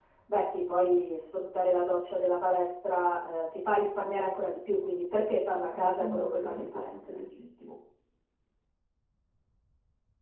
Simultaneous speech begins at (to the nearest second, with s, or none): 6 s